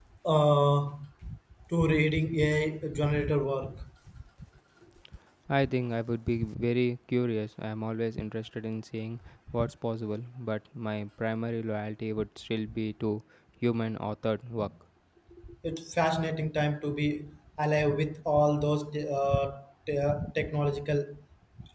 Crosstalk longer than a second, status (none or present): none